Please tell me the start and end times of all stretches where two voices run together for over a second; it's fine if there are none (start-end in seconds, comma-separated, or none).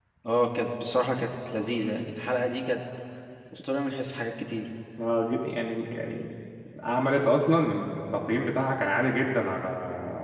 none